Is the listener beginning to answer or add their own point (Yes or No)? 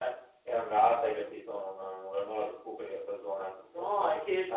Yes